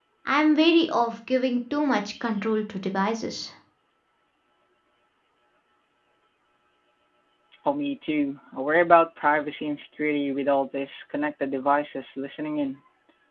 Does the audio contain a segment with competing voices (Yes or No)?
No